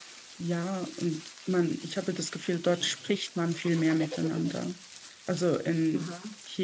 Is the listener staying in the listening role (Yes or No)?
Yes